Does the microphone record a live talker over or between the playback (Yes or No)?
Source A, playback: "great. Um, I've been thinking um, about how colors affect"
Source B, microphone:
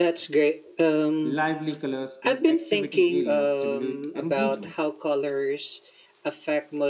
Yes